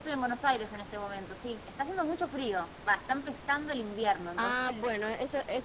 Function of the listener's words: taking over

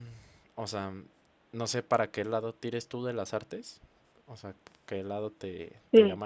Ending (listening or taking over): listening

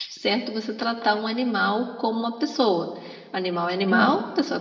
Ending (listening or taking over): listening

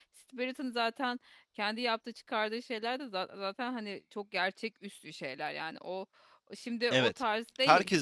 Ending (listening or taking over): taking over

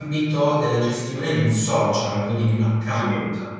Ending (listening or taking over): taking over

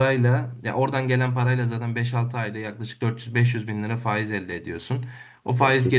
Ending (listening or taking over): listening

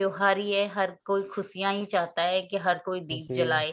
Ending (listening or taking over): taking over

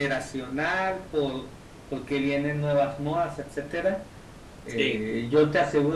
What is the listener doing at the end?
listening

